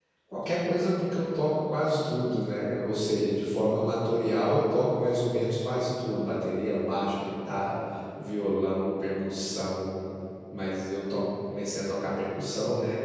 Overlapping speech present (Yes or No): No